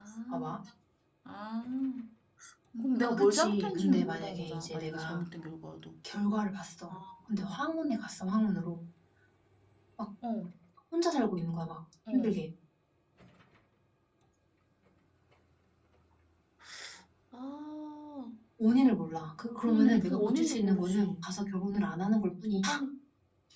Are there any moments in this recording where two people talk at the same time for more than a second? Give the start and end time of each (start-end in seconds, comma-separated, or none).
3.0-5.2, 19.6-21.1